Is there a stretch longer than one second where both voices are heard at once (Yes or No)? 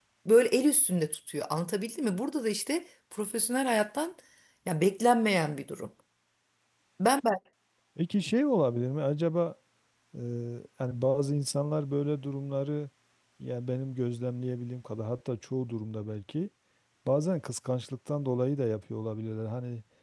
No